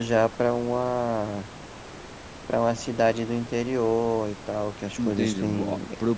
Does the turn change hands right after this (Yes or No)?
Yes